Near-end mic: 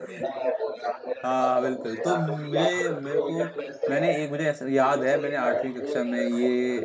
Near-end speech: present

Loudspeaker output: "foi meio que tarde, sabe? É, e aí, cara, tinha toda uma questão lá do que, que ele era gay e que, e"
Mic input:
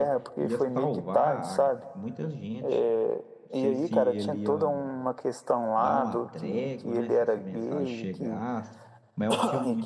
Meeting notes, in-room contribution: present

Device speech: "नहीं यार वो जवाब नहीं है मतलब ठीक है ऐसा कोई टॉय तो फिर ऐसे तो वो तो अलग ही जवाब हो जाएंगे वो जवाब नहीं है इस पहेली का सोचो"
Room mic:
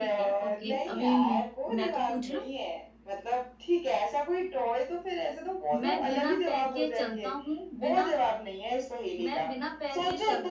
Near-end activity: present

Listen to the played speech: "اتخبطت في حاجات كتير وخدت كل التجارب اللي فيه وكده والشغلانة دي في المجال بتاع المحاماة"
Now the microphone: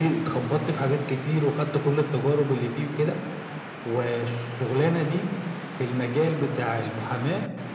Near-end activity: none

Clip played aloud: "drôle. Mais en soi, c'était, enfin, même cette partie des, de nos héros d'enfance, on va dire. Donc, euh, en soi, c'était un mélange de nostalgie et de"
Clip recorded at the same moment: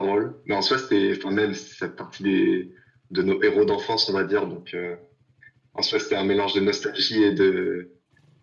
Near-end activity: none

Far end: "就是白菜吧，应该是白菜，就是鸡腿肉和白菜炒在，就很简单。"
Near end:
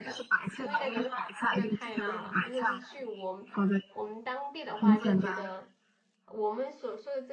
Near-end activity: present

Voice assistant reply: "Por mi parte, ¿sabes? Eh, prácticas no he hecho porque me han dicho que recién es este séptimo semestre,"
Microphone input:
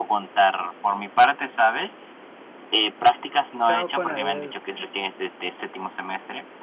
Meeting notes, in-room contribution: present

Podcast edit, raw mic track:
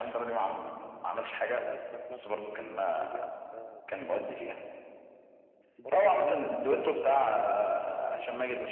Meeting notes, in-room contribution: present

